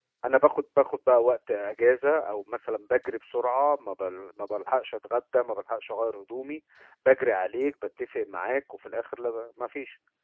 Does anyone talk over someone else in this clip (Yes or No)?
No